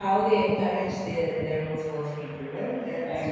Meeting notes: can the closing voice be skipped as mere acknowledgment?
No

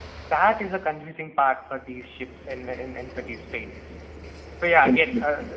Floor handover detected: No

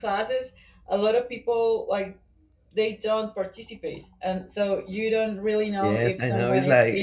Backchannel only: No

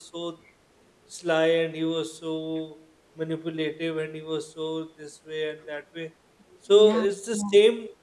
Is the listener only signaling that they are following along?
Yes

